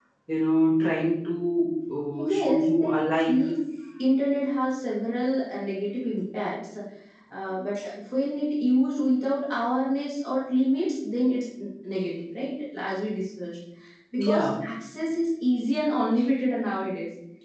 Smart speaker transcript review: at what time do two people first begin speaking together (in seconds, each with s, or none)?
2.2 s